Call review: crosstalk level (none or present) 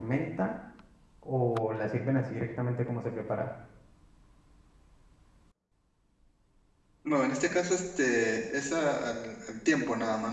none